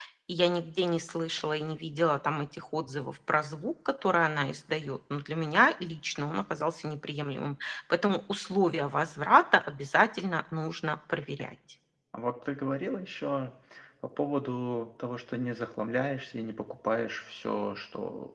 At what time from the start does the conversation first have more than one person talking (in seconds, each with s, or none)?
none